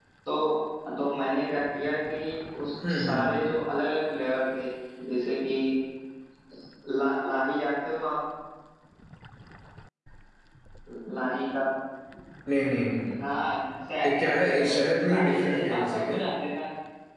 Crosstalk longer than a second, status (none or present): present